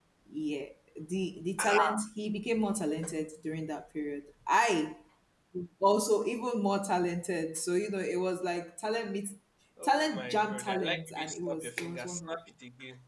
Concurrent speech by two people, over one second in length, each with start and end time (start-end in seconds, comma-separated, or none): 9.8-12.4